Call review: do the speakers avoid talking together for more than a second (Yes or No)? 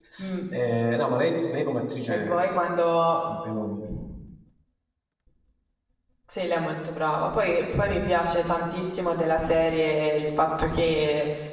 Yes